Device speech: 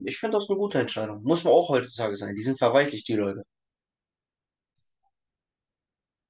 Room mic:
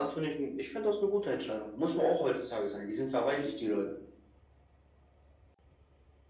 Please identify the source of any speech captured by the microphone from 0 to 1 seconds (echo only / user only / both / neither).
echo only